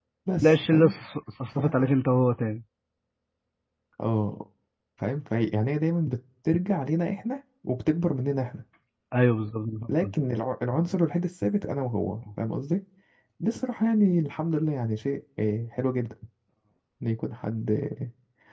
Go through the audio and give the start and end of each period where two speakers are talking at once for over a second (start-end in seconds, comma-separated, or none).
none